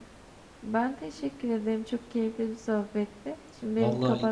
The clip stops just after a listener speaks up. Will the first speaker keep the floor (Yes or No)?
No